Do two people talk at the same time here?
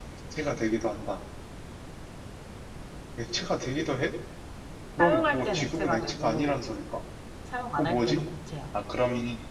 Yes, from 5.0 s

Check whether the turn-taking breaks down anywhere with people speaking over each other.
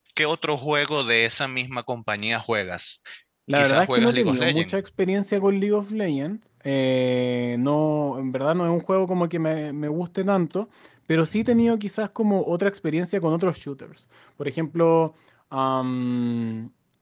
Yes, from 3.5 s

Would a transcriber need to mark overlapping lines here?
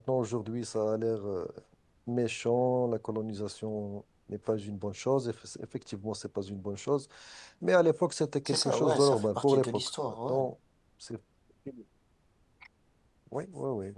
Yes, from 8.4 s

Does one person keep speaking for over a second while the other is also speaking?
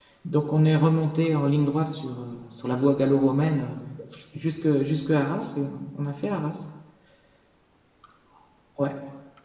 No

